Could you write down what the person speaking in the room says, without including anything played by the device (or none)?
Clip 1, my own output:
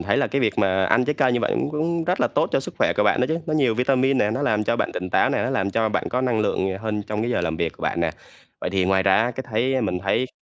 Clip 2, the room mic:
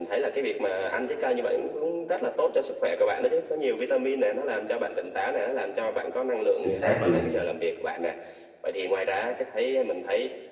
Chính xác luôn nè.